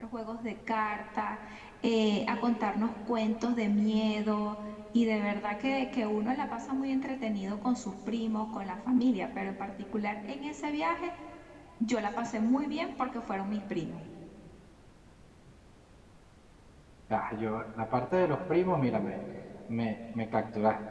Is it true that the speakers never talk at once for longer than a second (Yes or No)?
Yes